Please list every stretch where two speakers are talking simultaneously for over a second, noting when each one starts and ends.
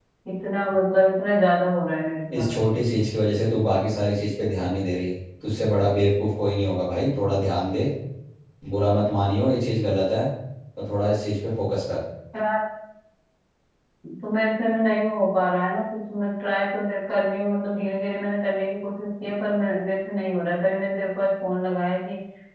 none

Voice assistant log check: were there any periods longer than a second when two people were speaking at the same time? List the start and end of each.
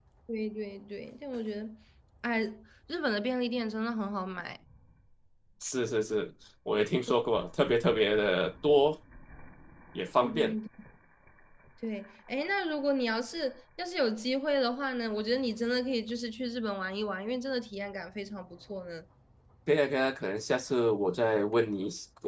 none

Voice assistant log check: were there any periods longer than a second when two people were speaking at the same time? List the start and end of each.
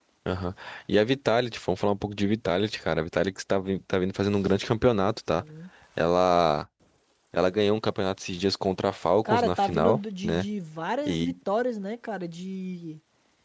9.2-10.4

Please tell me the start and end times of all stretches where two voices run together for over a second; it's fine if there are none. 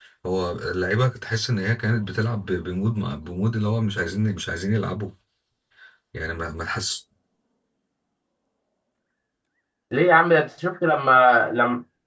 none

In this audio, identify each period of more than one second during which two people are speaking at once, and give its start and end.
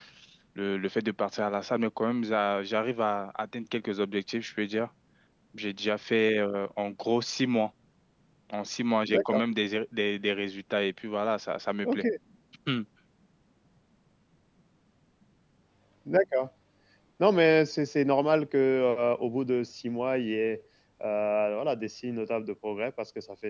none

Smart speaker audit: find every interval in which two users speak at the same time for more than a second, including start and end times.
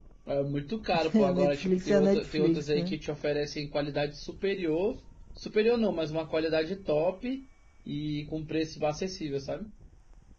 1.1-3.0

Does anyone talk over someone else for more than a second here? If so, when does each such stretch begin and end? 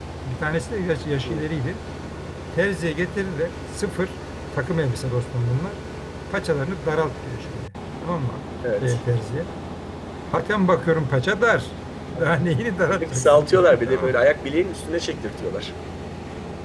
12.9-14.2

